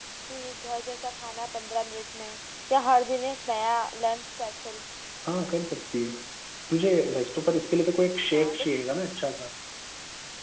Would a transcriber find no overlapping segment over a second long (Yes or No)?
Yes